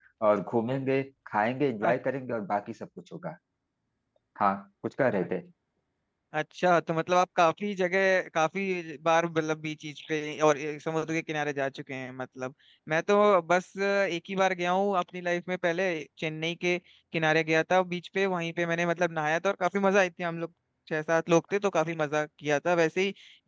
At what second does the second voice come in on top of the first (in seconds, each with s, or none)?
none